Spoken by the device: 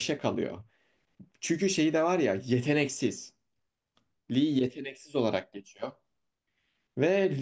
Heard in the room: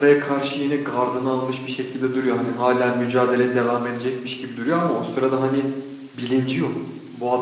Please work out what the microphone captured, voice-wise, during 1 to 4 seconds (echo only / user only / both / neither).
user only